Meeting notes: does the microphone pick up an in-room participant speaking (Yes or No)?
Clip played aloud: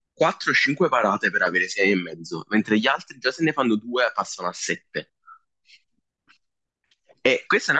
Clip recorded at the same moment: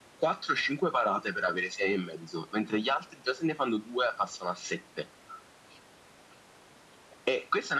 No